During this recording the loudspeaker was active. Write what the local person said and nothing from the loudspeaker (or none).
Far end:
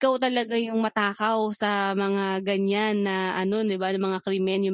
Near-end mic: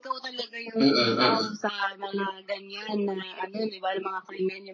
mm, mm.